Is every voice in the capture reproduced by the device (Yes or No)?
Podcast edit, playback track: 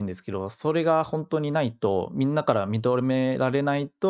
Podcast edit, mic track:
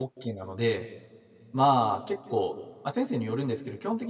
No